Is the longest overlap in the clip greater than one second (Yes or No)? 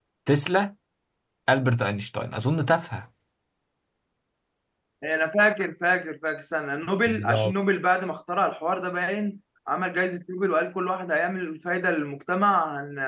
No